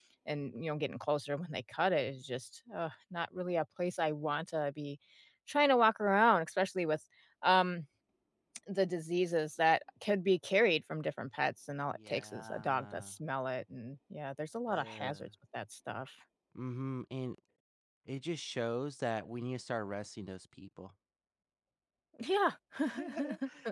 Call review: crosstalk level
present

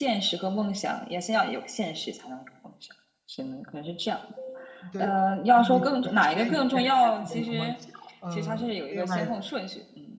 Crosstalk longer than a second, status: present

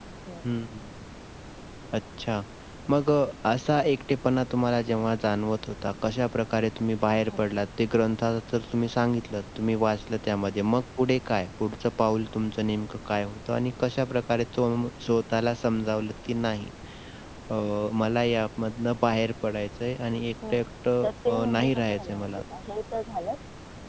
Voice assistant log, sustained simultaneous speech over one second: present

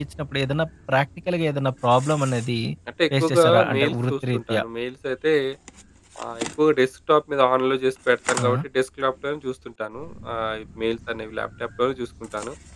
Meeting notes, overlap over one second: present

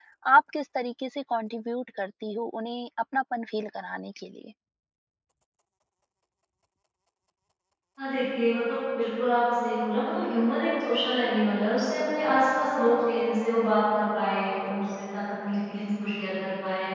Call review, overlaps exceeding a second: none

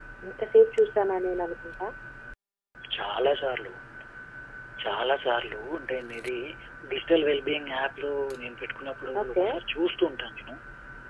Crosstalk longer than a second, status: none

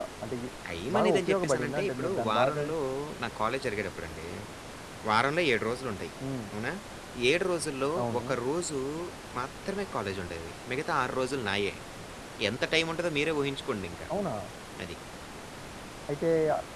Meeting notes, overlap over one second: present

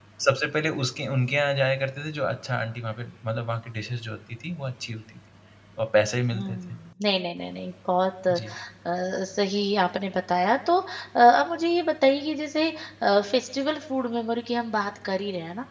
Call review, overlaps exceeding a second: none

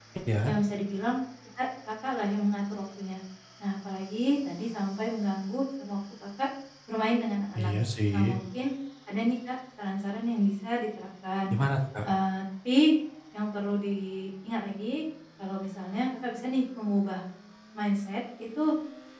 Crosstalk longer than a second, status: none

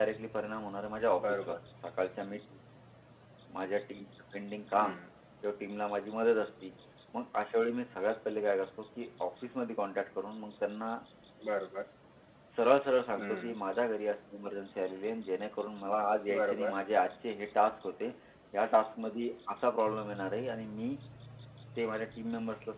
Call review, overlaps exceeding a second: none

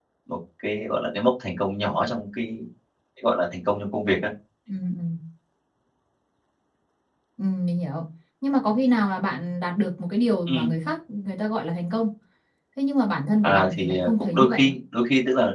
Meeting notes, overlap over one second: present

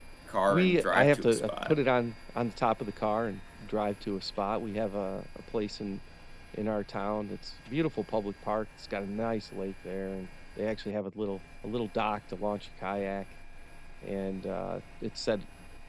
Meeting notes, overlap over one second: present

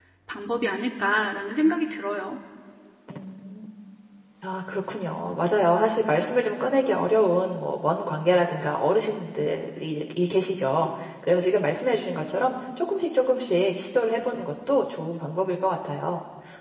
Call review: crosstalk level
none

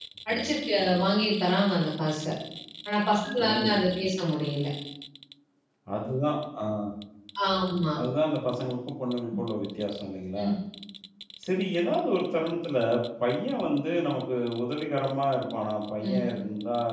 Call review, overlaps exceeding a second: none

